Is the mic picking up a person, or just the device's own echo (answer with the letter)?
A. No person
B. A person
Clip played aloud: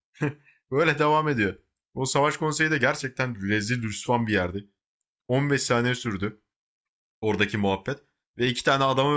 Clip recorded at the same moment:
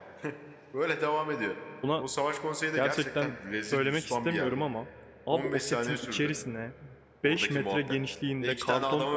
B